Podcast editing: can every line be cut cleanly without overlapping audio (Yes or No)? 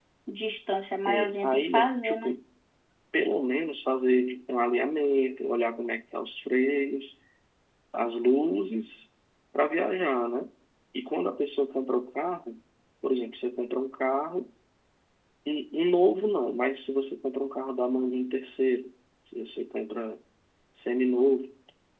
No